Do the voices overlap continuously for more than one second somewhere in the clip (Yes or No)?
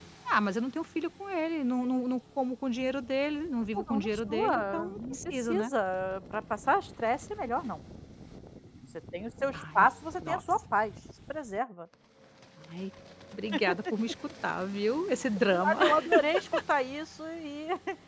Yes